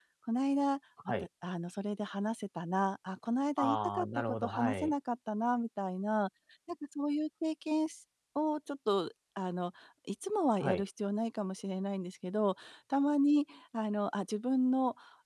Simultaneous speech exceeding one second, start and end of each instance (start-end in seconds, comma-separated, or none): 3.6-4.9